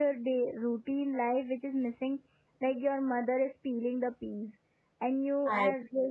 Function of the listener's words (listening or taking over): listening